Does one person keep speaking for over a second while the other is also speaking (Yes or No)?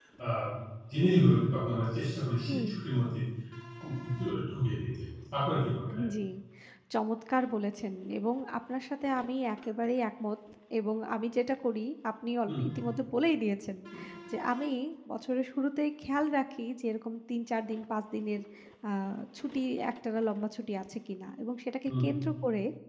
No